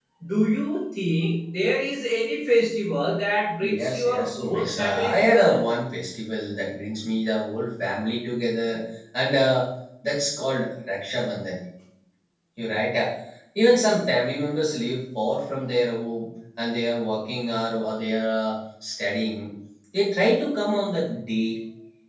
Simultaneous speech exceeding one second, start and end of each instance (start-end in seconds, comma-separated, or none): 3.6-5.6